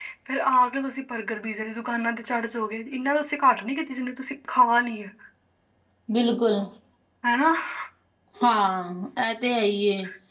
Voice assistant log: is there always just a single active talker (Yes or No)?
Yes